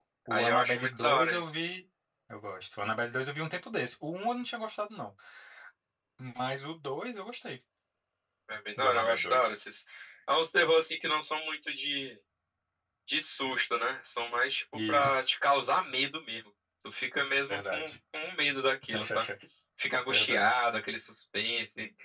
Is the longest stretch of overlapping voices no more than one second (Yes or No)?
No